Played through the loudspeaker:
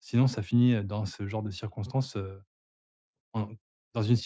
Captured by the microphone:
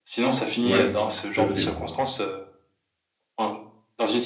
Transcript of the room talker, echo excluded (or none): ouais, tout à fait, ouais.